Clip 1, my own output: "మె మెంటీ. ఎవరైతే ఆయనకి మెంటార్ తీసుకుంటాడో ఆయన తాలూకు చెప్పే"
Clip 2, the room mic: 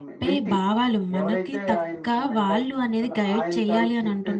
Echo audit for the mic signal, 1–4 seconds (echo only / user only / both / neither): both